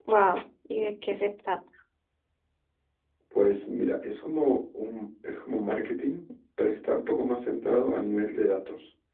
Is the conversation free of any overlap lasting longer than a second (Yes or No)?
Yes